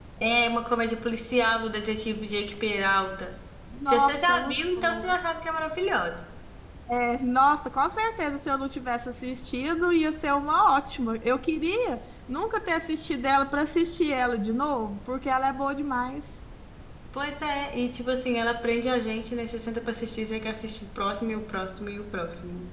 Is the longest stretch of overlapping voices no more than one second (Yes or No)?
No